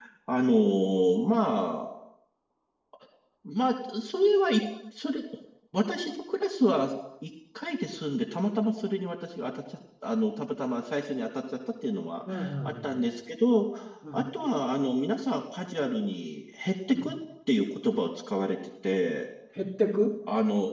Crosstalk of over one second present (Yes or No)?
No